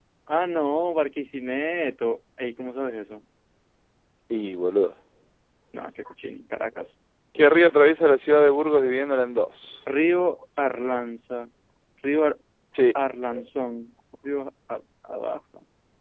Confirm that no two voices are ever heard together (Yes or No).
Yes